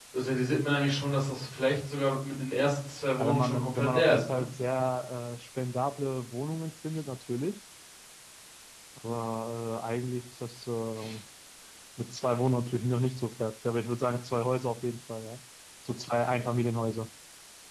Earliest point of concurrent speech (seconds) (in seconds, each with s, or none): 3.2 s